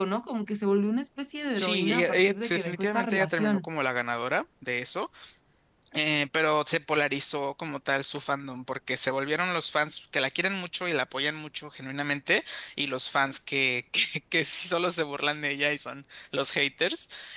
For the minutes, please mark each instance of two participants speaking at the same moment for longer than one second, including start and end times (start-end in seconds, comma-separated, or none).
1.6-3.6